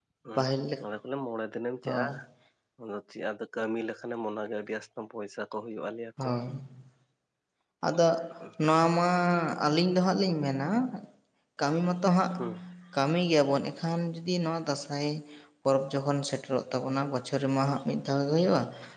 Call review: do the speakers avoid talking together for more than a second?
Yes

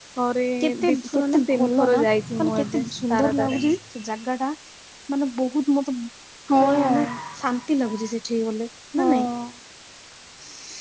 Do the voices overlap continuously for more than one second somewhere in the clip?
Yes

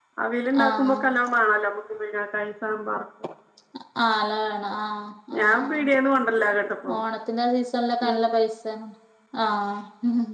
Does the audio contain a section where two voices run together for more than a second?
No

